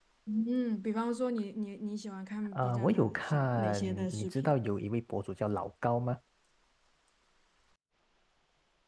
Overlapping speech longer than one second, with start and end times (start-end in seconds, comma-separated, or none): 2.5-4.5